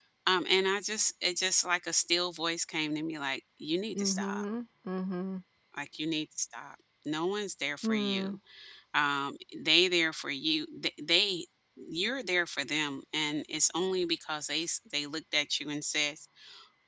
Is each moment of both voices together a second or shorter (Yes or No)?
Yes